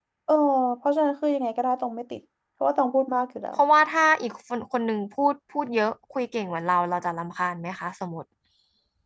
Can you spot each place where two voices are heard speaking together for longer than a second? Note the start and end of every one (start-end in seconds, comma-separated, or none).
none